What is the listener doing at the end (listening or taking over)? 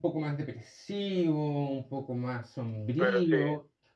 listening